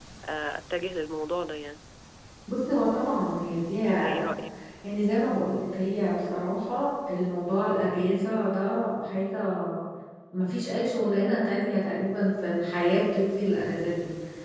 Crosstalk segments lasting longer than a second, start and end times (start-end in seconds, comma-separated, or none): none